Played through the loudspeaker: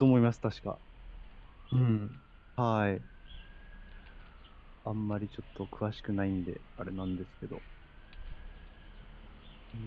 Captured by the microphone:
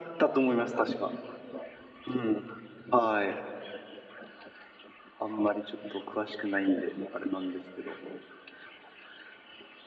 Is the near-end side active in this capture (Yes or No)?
No